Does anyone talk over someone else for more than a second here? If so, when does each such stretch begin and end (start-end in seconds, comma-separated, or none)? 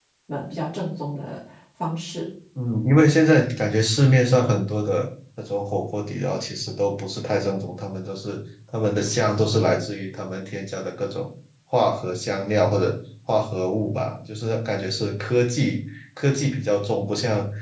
none